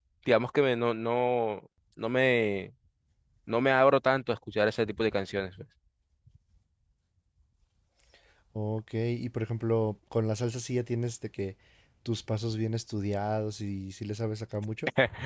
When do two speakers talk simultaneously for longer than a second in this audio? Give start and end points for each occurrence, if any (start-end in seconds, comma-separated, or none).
none